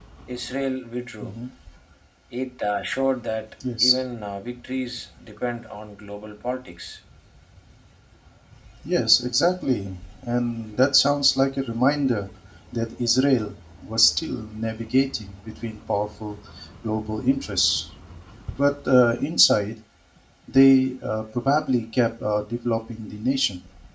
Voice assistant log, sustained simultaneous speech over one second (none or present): none